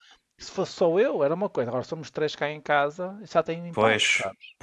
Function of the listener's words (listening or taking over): taking over